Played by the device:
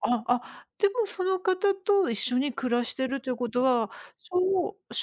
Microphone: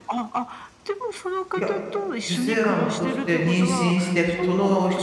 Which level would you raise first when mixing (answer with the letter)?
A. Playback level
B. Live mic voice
A